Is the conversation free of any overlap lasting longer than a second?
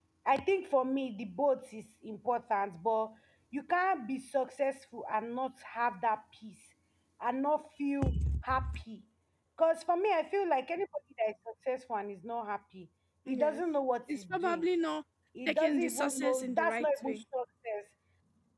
No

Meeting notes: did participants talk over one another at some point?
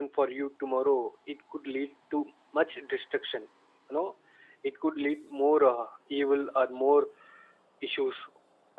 No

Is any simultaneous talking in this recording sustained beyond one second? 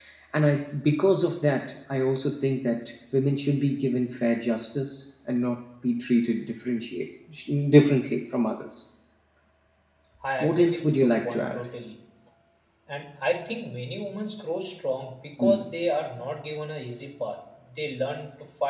Yes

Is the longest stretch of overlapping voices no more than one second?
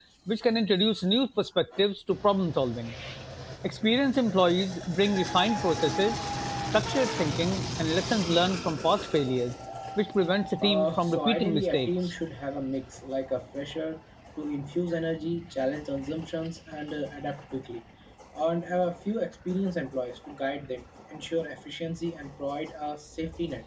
No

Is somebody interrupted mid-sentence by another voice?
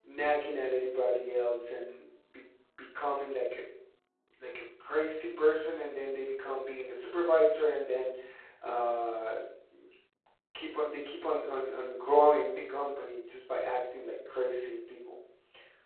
No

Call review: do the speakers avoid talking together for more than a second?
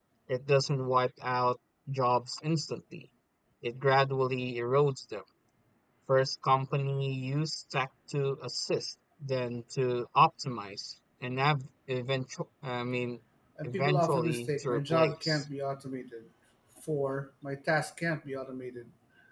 No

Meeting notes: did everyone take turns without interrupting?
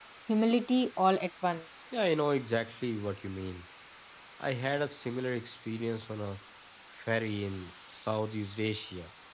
Yes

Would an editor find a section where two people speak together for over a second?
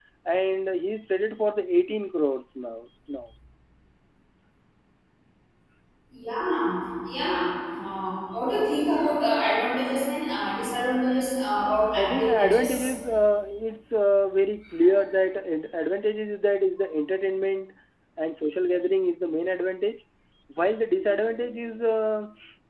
Yes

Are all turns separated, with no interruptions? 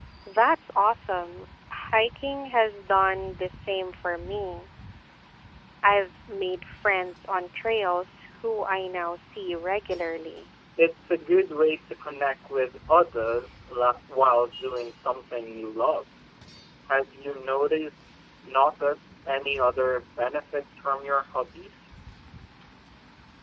Yes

